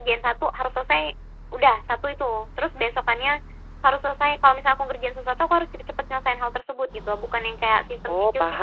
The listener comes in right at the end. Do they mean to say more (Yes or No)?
No